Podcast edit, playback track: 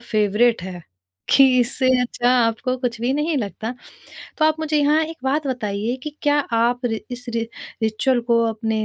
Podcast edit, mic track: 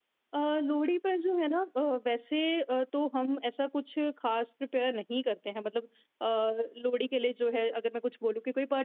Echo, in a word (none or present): none